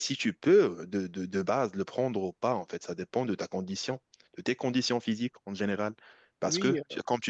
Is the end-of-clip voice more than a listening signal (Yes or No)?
No